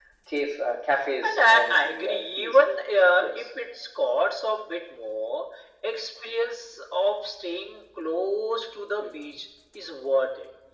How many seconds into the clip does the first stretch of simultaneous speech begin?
1.2 s

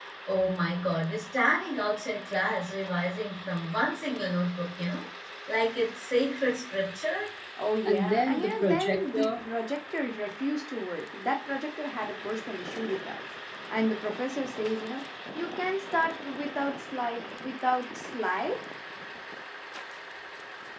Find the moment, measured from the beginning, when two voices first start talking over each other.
7.8 s

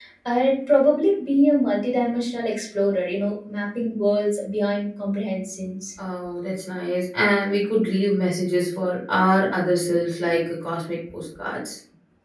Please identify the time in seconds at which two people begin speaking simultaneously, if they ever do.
none

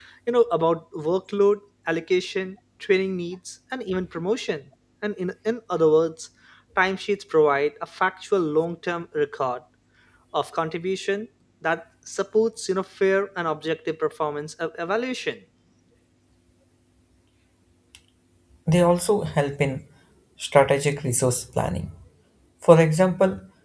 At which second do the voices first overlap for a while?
none

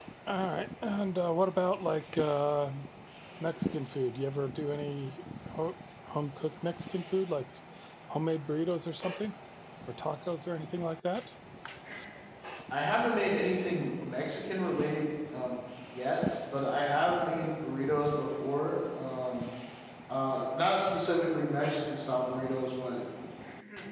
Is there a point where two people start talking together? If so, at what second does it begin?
none

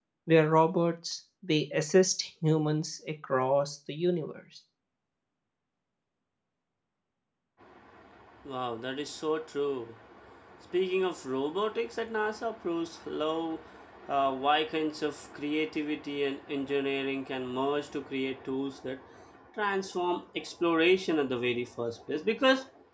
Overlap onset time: none

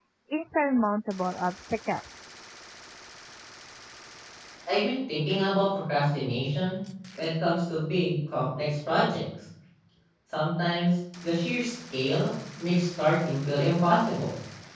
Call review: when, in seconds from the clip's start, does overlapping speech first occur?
none

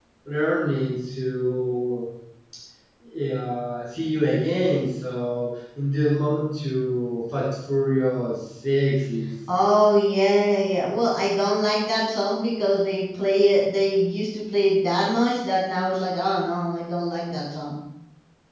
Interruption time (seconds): none

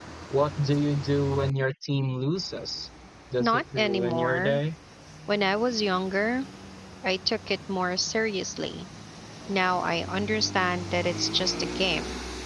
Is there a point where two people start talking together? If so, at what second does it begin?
3.4 s

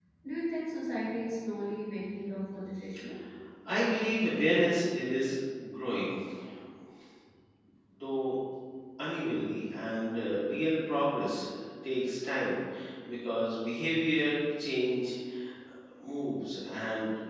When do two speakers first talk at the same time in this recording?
none

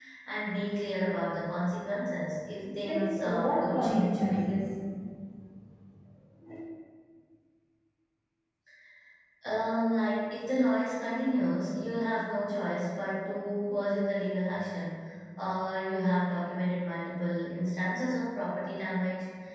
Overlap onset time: 2.8 s

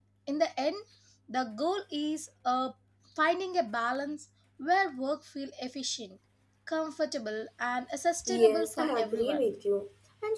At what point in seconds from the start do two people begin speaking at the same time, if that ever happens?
8.3 s

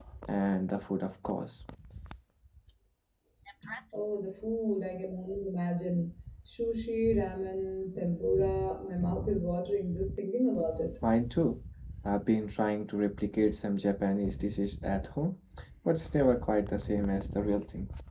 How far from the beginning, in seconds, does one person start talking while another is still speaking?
none

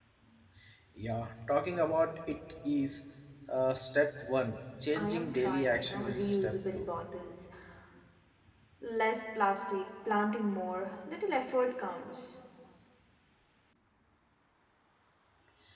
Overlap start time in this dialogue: 4.9 s

